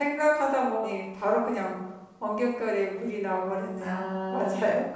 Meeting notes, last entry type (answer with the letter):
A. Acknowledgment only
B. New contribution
B